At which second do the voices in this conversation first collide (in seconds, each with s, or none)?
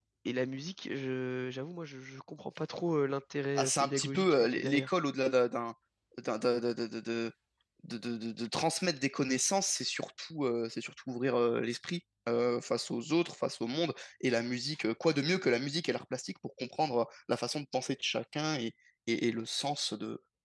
3.5 s